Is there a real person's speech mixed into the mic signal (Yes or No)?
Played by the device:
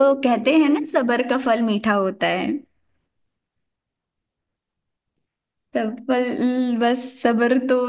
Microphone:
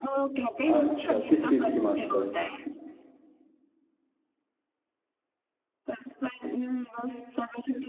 Yes